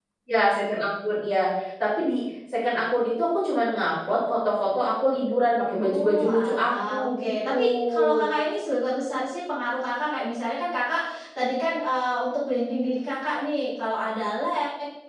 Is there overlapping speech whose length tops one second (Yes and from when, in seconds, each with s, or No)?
Yes, from 5.8 s